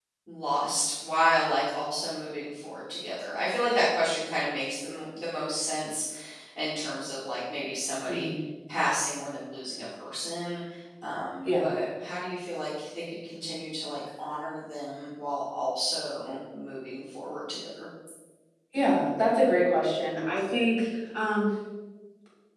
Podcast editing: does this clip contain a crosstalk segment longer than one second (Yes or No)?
No